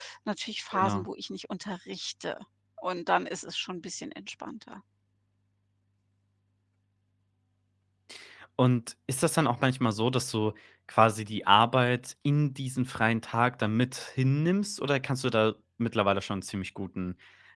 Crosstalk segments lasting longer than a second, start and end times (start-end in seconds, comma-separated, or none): none